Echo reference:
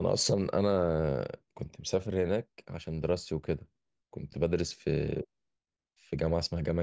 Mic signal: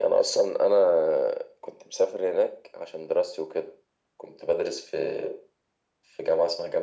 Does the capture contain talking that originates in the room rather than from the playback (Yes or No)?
No